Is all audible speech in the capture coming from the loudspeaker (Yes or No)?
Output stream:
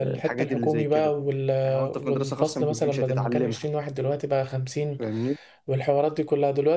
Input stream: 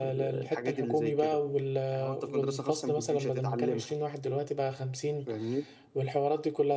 Yes